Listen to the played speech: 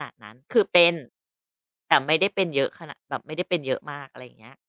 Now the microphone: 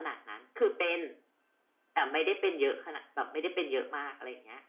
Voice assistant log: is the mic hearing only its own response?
Yes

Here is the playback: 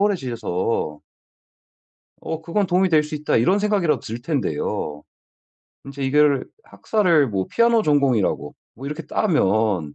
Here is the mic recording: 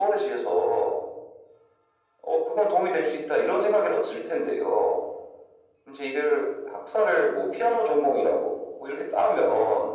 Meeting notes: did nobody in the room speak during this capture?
Yes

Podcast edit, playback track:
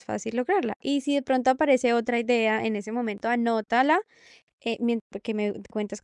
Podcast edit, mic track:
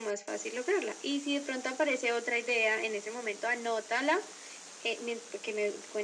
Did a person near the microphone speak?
No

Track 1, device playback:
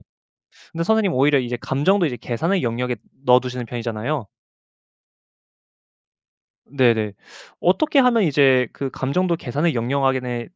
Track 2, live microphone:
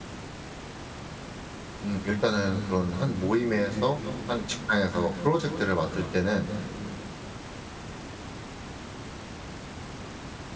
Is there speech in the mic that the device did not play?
Yes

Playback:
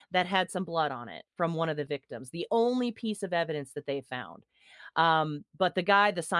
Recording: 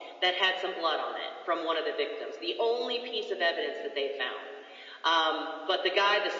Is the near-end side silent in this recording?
Yes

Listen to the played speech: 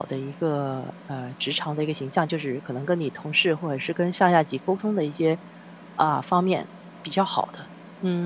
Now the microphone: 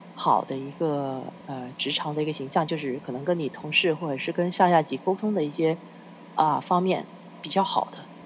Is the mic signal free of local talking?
Yes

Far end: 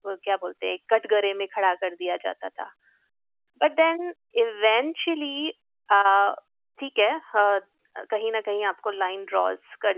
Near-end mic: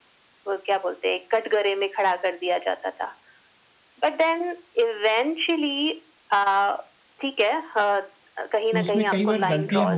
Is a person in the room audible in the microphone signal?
Yes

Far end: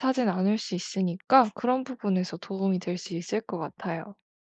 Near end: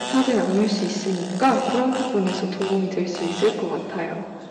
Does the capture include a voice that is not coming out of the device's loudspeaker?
No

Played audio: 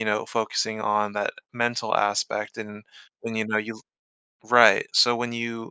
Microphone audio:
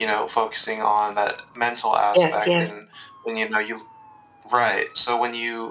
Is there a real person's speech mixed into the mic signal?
Yes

